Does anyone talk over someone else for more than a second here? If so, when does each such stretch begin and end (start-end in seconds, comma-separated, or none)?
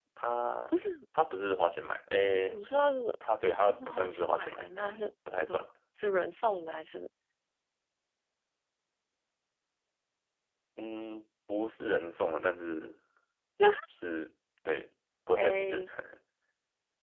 3.5-4.7